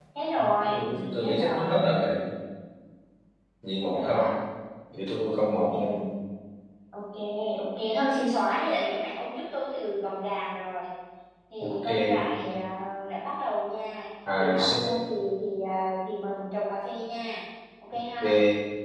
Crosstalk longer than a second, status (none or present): present